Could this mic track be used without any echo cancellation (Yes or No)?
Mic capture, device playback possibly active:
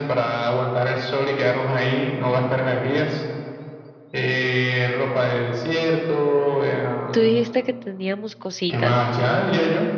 No